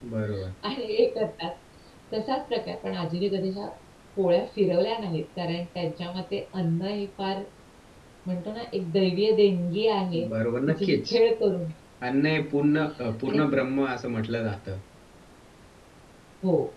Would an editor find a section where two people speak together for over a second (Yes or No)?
No